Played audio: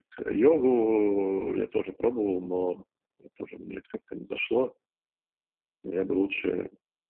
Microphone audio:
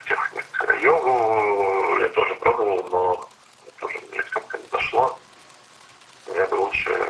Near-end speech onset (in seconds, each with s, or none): none